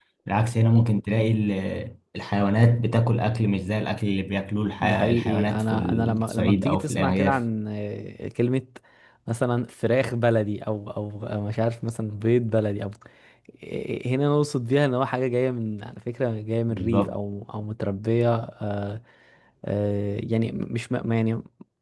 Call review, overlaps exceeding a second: present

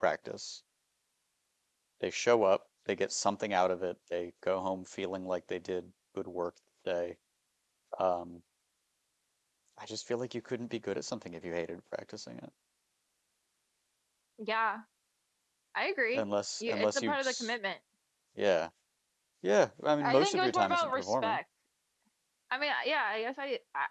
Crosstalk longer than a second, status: present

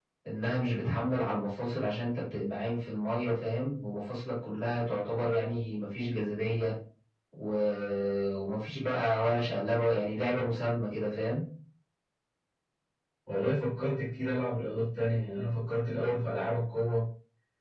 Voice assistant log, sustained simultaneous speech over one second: none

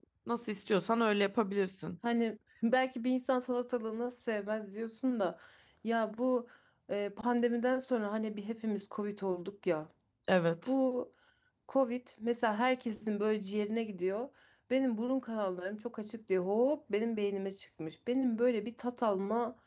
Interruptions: none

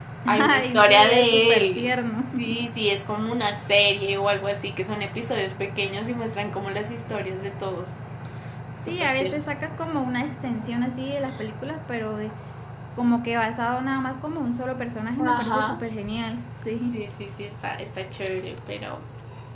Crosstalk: present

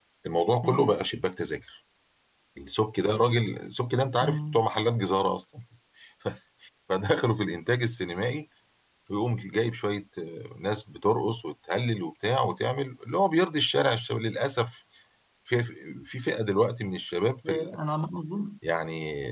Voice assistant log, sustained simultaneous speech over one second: none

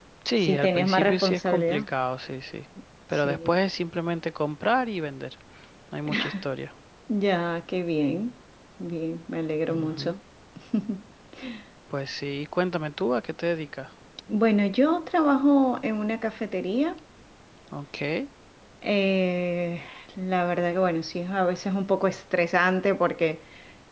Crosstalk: present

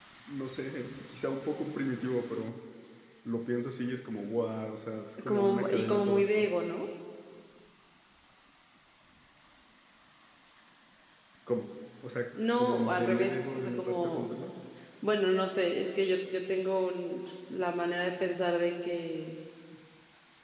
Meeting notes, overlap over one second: present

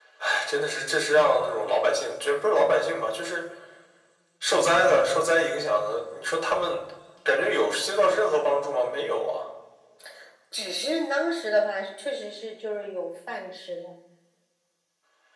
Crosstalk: none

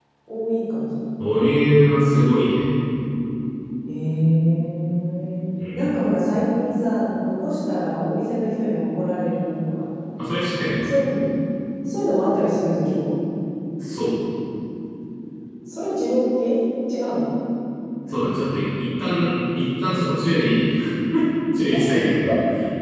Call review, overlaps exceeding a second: none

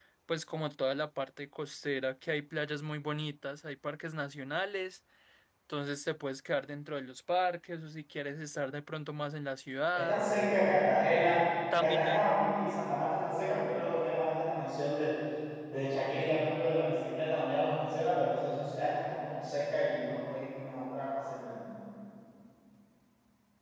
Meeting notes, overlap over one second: none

